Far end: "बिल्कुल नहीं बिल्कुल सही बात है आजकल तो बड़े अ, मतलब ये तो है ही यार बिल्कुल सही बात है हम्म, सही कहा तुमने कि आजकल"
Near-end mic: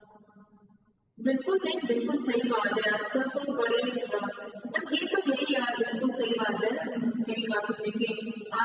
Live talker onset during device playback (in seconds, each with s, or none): none